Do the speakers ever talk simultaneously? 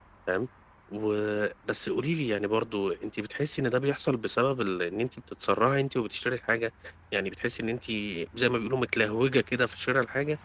No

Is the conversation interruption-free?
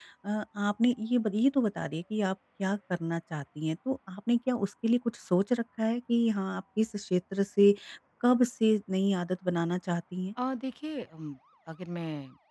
Yes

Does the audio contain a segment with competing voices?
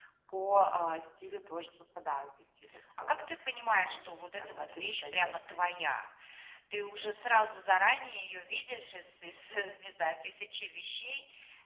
Yes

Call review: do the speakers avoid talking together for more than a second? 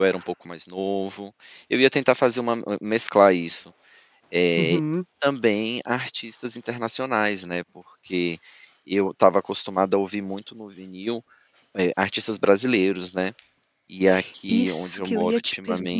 No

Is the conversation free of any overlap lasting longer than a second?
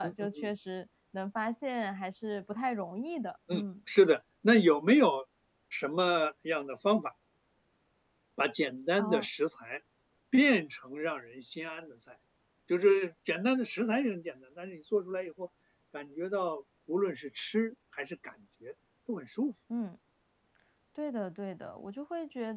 Yes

